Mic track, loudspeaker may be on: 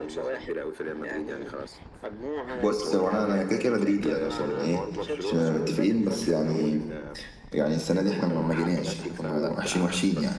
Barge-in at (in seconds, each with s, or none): 2.5 s